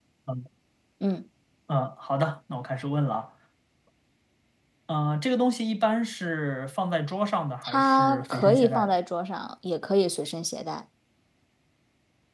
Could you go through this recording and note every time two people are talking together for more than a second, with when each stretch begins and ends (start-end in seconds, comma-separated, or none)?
7.6-8.9